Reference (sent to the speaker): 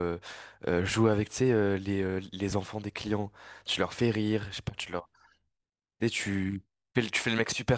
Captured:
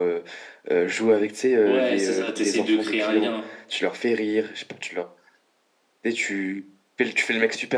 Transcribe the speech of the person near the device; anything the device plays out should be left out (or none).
Ouais, c'est ça, t'essayes de créer un lien,